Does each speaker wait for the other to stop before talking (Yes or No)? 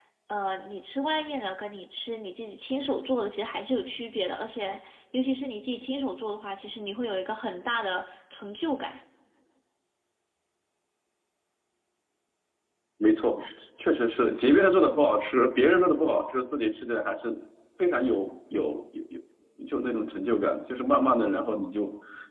Yes